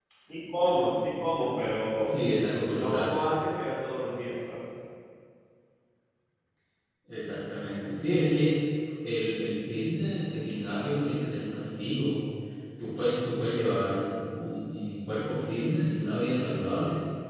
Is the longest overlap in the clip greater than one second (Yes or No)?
No